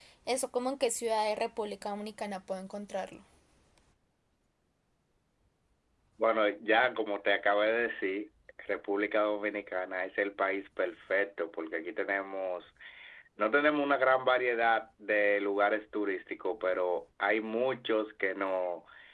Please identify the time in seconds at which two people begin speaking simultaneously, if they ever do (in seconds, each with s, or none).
none